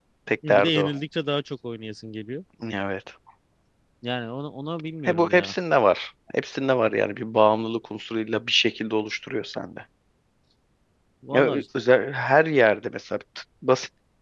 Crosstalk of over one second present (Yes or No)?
No